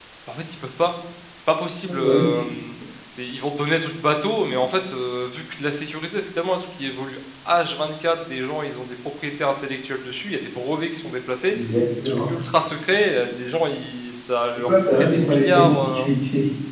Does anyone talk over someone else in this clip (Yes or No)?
Yes